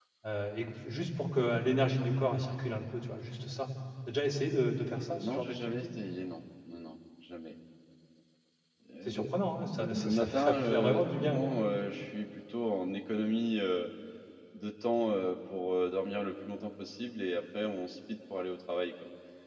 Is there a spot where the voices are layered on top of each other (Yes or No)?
Yes